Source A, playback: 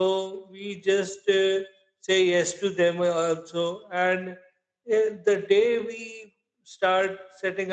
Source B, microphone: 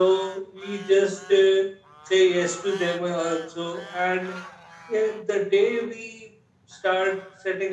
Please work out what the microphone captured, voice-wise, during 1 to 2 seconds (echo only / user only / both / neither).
echo only